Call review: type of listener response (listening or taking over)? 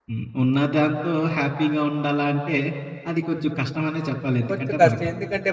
taking over